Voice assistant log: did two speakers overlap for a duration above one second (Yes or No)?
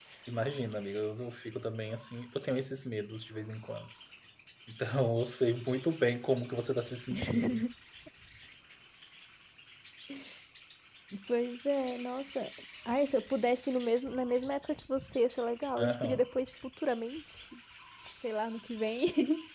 No